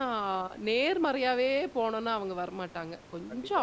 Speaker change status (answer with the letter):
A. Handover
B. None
A